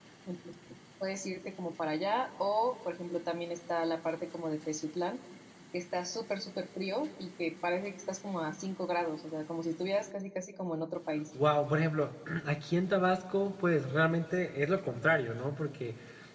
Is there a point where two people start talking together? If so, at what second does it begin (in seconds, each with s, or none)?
none